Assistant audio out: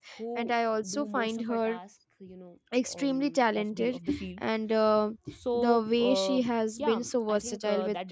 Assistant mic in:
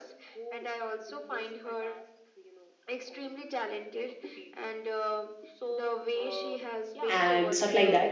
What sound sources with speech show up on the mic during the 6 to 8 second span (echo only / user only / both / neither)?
both